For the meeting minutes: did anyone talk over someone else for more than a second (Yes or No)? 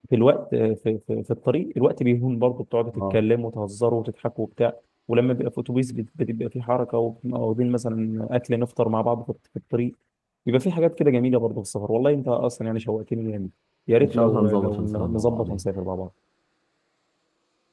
Yes